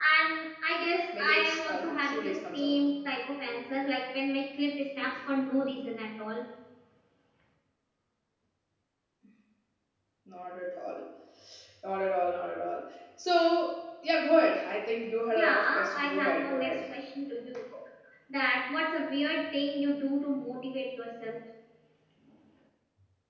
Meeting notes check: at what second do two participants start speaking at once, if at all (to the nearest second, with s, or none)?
1 s